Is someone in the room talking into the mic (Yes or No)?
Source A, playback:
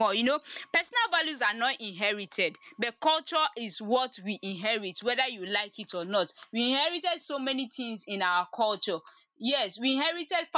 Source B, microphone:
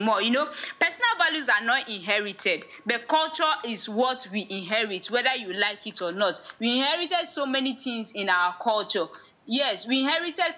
No